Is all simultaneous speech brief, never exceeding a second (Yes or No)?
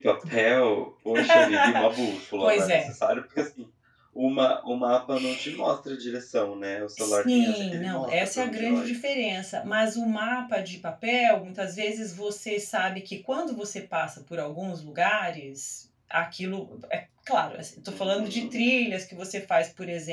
No